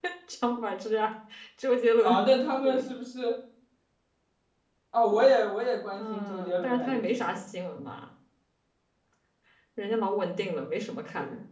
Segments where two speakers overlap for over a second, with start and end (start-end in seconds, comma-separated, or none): 5.9-7.4